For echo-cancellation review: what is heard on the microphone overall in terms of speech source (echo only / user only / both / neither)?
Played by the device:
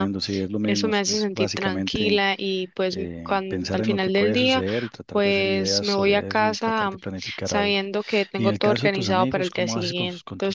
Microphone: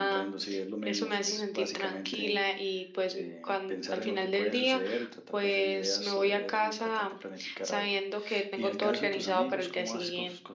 echo only